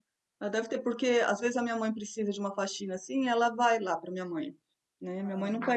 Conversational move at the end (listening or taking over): listening